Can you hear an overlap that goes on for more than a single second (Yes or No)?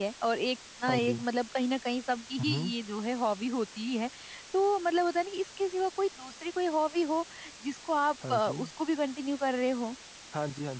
No